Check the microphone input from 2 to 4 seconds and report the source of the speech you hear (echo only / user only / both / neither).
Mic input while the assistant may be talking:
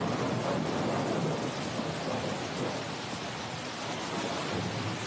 neither